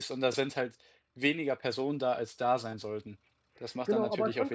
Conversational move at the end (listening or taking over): taking over